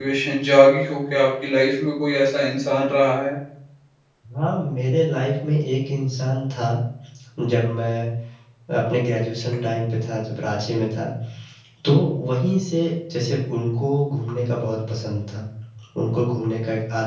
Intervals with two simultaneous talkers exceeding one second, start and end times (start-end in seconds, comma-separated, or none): none